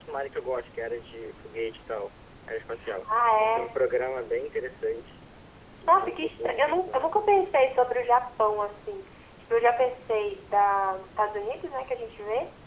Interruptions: present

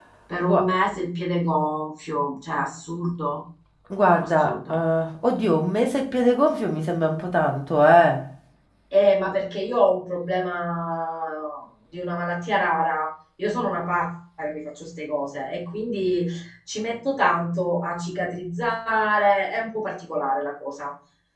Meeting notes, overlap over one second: none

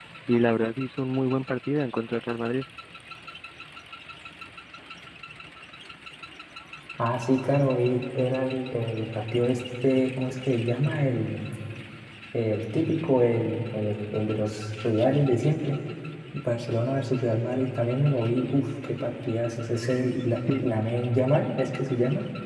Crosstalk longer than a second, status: none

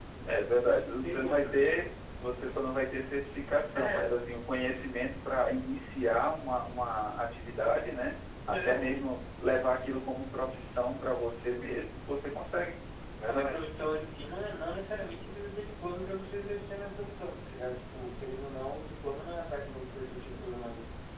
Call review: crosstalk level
present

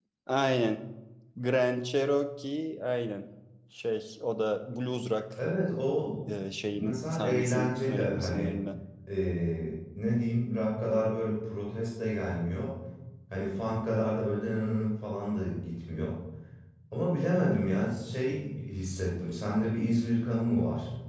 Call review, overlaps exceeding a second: present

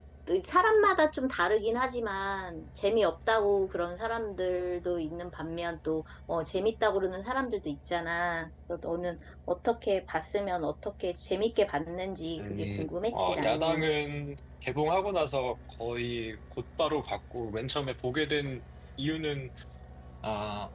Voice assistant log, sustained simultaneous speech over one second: present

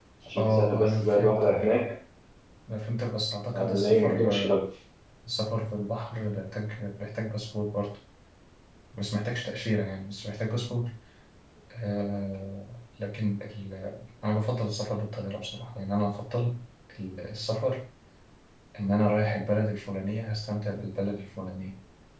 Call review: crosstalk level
present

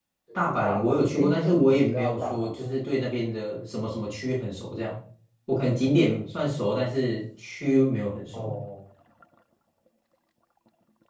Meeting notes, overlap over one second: present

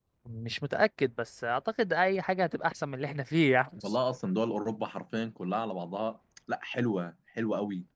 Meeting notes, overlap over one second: none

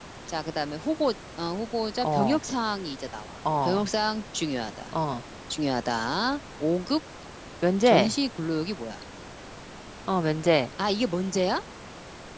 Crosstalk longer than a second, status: none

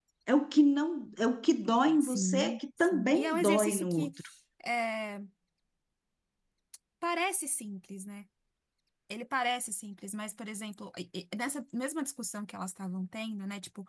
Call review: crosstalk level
present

